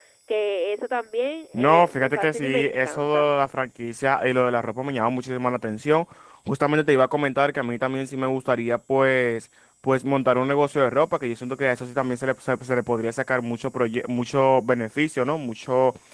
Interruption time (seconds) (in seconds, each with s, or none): 1.5 s